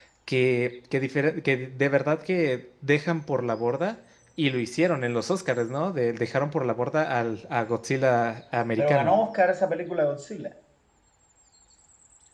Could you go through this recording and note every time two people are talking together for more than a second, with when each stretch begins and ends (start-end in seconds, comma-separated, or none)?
none